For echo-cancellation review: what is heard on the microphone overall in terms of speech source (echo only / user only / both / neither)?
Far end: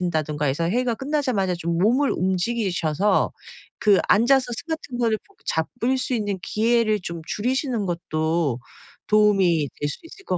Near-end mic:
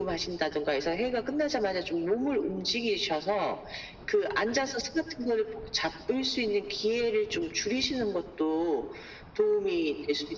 echo only